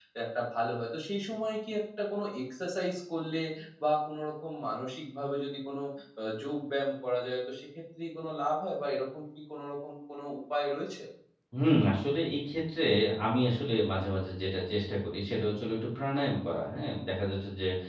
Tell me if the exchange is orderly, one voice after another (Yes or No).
Yes